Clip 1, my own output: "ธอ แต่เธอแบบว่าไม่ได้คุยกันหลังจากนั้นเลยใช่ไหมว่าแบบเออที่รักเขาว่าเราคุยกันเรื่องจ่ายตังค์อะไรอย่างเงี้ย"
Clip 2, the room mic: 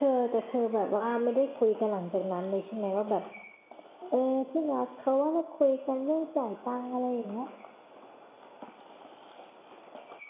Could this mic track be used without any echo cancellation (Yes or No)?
No